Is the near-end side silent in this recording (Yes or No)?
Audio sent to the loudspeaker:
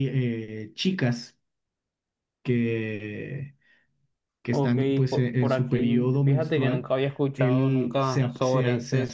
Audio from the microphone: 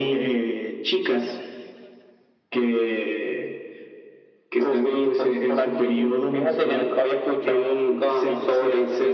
Yes